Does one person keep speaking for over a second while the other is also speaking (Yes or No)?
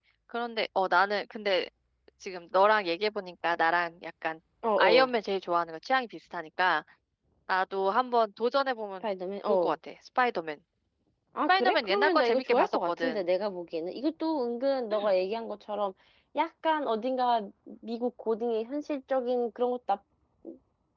Yes